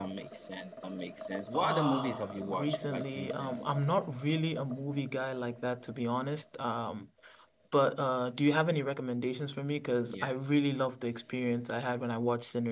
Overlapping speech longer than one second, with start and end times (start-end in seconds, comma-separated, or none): 1.5-3.7